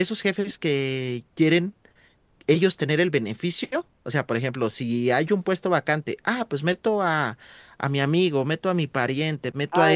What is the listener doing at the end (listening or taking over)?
taking over